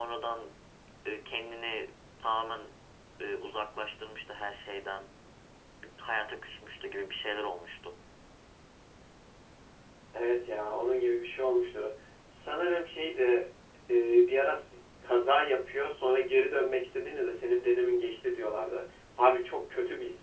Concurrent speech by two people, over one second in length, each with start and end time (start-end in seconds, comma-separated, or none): none